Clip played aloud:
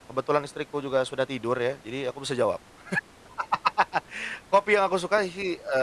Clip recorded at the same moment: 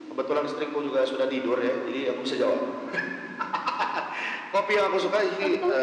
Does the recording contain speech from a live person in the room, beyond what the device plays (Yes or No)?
Yes